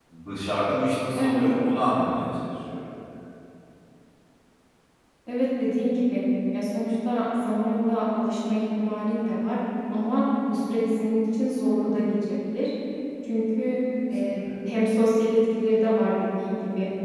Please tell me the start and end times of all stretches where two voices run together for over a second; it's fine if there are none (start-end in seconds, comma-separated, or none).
none